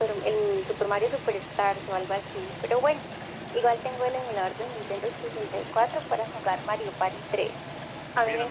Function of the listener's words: taking over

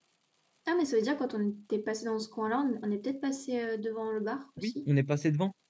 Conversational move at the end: taking over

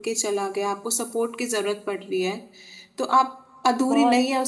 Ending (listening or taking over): listening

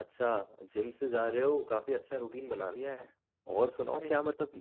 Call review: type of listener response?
listening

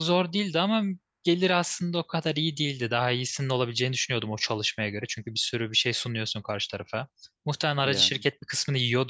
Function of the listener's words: listening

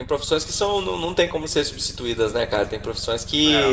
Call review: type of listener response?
listening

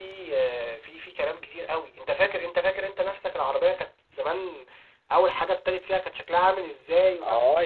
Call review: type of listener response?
taking over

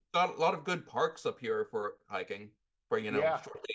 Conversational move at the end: taking over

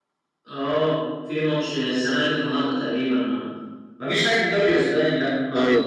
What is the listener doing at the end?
taking over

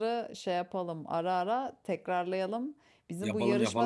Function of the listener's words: listening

